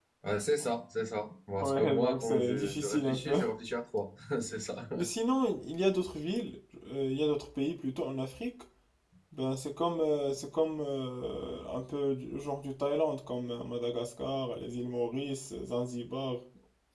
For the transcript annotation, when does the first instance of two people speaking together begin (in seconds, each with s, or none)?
1.6 s